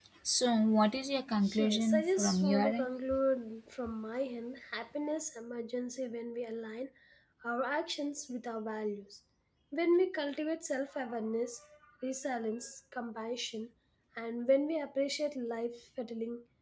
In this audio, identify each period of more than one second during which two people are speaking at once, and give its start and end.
1.6-2.9

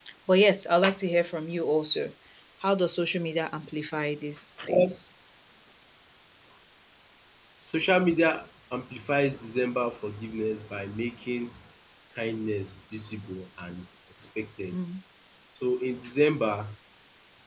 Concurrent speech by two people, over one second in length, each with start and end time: none

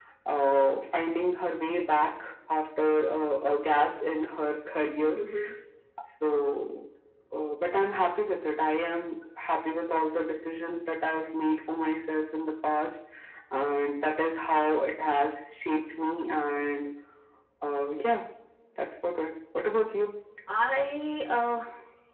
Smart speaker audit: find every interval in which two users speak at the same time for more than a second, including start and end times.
none

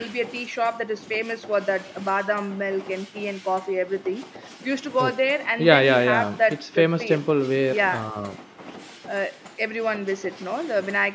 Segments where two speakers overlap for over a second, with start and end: 5.6-7.2

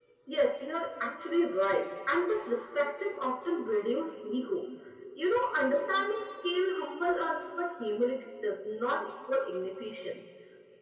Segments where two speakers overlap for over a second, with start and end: none

